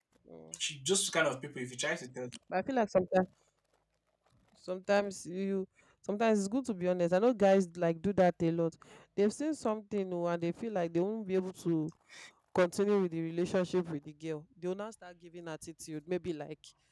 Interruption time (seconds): none

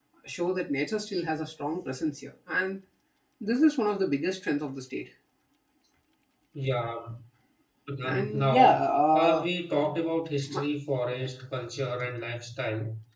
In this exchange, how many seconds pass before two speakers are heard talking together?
8.0 s

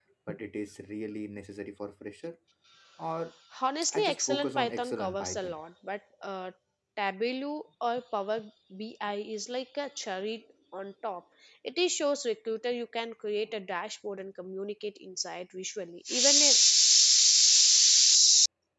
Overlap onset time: 3.9 s

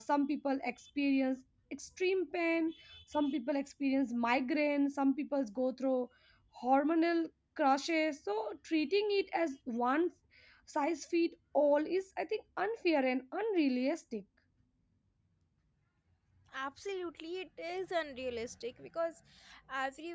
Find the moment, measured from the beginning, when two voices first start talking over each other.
none

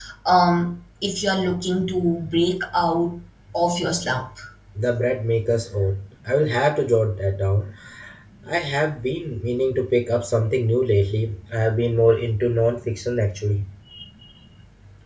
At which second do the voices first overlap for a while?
none

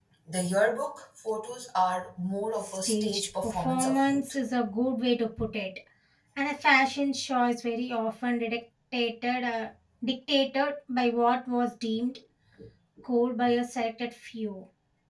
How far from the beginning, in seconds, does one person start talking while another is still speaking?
2.6 s

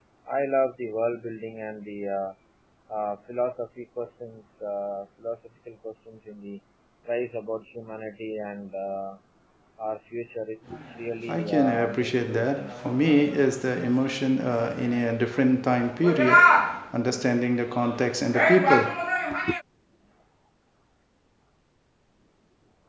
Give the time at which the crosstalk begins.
11.3 s

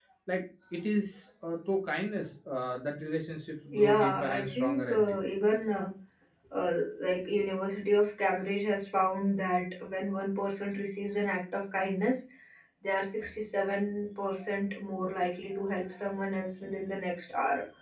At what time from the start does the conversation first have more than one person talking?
3.7 s

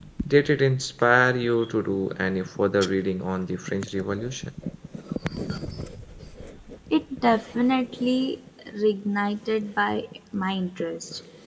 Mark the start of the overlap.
none

